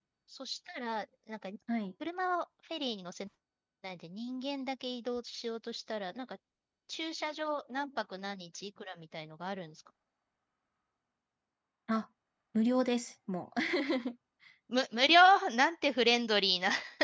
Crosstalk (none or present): none